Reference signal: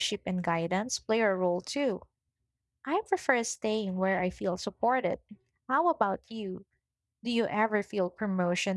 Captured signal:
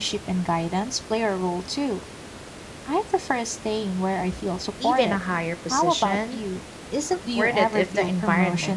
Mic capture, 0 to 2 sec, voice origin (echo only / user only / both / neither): echo only